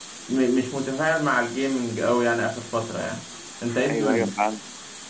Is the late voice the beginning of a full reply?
Yes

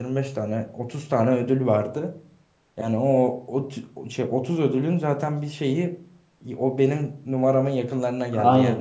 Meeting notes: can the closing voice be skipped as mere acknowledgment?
No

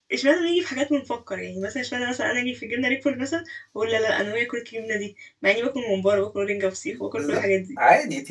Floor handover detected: Yes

